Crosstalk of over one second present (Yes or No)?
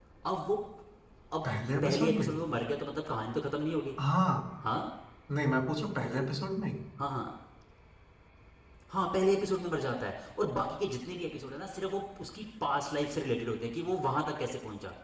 No